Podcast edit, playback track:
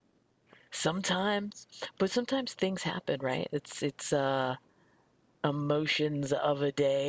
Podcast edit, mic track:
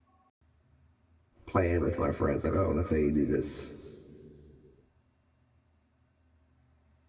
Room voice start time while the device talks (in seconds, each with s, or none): 1.4 s